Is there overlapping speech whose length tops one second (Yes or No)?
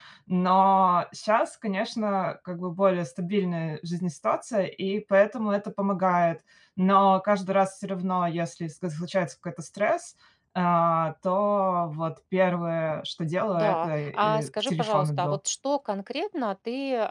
Yes